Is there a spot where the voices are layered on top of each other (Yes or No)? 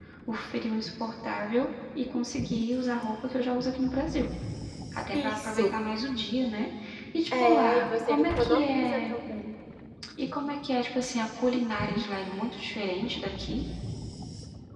Yes